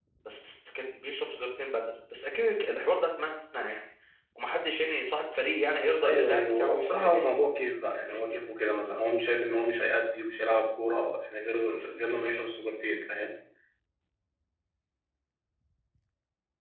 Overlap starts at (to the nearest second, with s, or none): 6 s